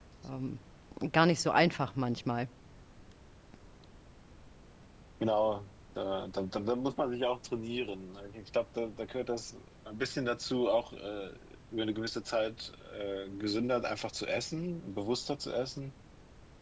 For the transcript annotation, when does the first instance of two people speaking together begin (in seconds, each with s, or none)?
none